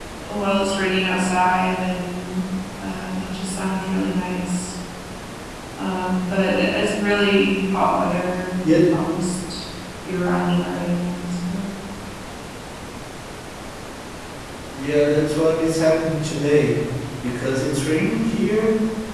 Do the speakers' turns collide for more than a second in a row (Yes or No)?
No